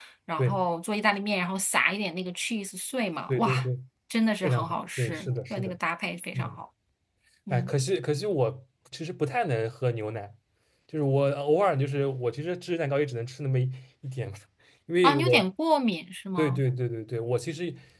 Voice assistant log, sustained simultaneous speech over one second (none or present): present